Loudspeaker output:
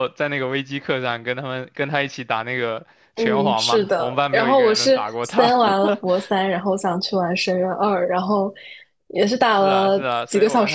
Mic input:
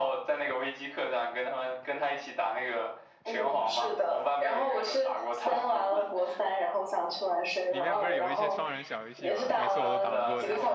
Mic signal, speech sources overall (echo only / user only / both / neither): both